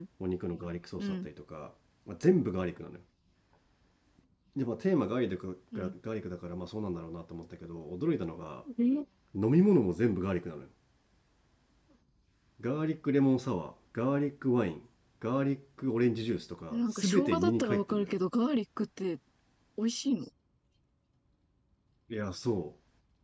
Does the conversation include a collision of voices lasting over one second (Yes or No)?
Yes